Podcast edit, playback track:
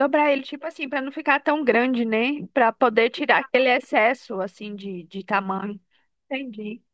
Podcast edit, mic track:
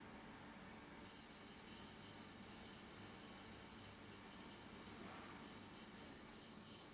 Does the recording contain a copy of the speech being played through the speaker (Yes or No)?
No